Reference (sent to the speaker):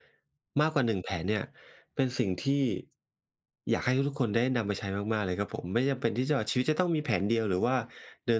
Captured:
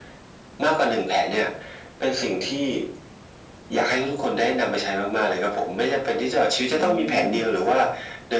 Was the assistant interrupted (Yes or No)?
Yes